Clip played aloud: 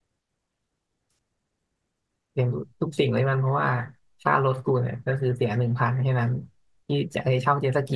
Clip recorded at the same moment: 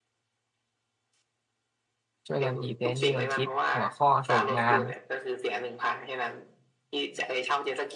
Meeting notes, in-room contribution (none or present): present